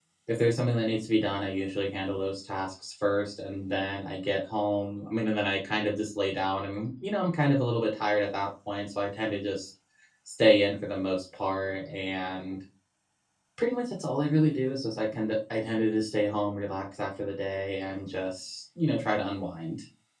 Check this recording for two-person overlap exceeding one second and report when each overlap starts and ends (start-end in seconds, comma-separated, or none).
none